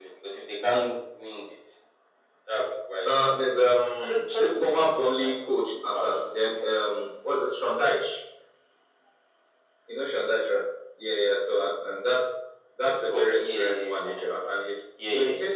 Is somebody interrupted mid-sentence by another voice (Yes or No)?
Yes